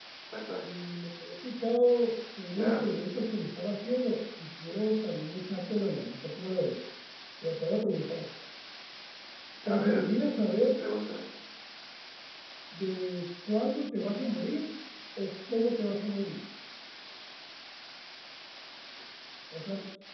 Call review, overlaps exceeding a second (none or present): none